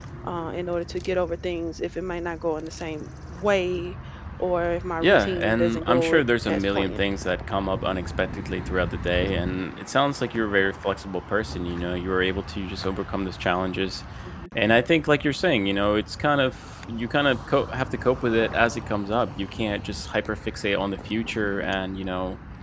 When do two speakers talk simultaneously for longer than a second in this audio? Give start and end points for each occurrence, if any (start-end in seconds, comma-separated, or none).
5.0-7.0